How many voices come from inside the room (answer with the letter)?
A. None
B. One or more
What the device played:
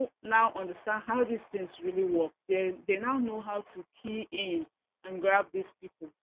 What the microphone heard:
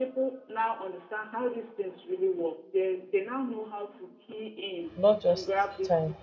B